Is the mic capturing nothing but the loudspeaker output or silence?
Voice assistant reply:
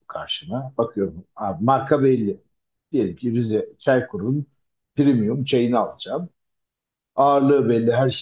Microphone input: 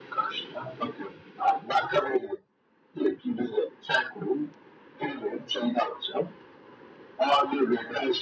Yes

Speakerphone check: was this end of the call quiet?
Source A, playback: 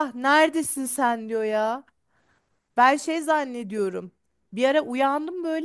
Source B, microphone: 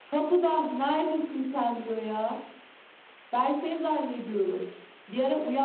Yes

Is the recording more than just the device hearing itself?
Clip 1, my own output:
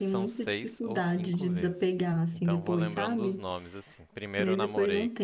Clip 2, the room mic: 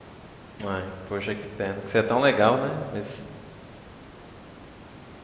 Yes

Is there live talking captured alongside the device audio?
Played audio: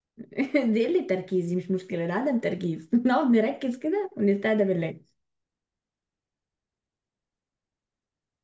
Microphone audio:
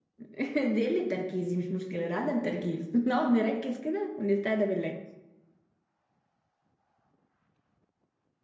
No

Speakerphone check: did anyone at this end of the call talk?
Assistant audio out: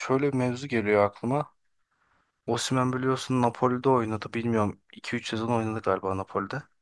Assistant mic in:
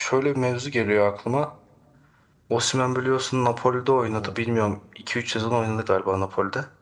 Yes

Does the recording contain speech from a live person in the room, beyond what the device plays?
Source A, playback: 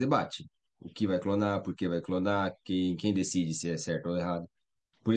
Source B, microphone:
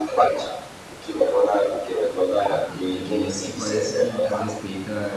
Yes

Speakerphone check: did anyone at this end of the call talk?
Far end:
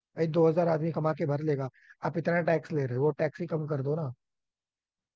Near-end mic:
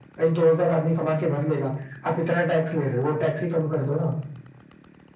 No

